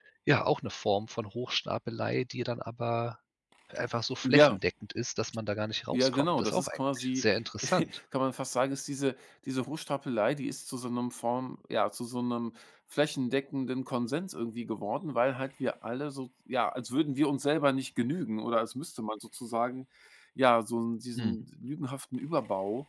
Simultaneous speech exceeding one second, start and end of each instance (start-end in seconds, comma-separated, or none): 5.9-7.2